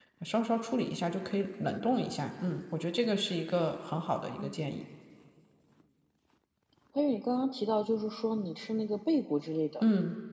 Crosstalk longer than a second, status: none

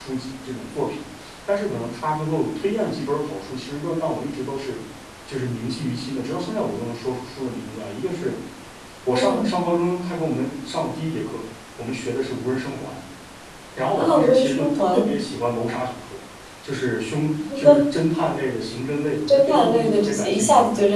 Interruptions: present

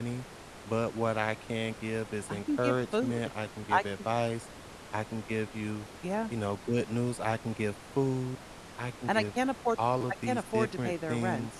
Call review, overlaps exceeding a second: present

